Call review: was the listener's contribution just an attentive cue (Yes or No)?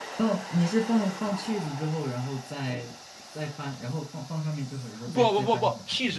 No